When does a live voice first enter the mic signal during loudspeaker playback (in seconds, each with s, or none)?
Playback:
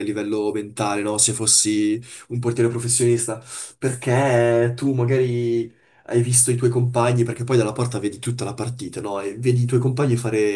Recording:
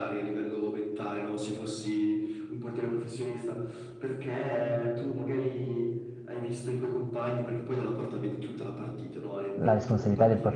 9.5 s